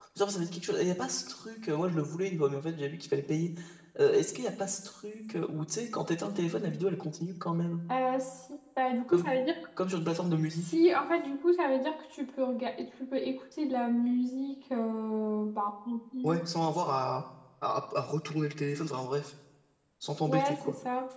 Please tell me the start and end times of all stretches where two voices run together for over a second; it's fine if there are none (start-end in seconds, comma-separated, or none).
none